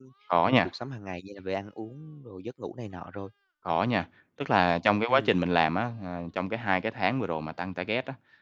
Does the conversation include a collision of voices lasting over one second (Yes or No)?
No